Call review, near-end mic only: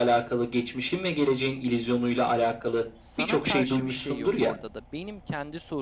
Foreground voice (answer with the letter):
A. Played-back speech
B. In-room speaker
A